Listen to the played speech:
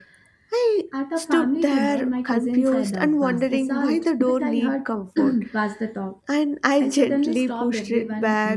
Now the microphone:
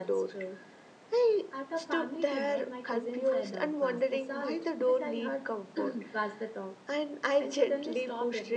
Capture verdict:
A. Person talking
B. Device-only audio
B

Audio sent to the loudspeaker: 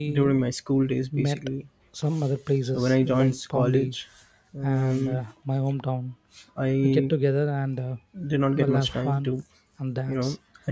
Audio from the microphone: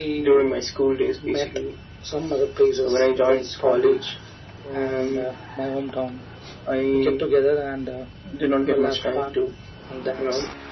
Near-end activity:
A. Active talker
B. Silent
B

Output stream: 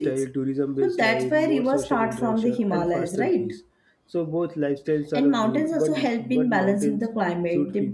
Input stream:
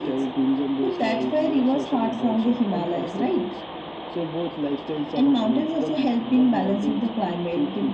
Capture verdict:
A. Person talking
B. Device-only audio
B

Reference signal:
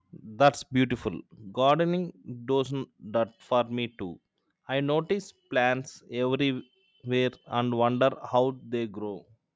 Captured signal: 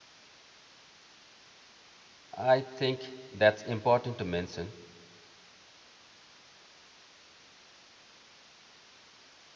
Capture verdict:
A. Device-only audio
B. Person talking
B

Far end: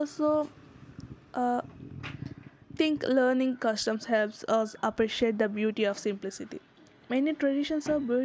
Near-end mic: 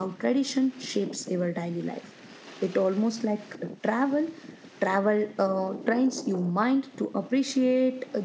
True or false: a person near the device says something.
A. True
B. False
A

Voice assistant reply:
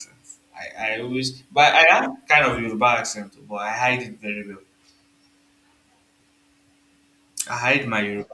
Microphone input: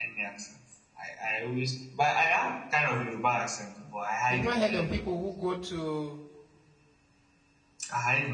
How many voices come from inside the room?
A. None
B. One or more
B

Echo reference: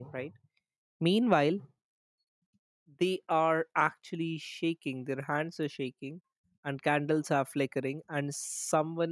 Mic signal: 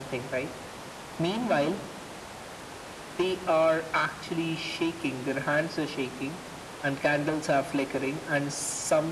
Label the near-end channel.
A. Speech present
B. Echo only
B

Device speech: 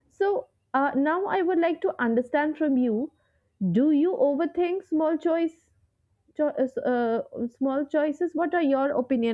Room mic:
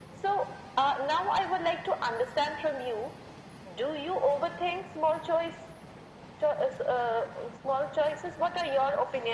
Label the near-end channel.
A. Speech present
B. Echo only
B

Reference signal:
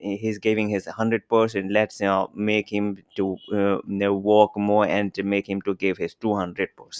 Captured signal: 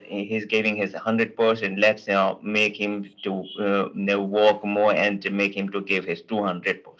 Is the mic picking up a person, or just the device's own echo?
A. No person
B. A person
A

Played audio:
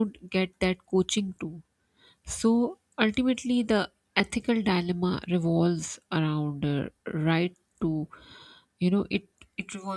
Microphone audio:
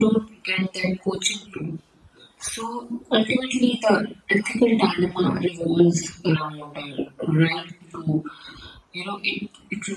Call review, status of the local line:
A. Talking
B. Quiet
B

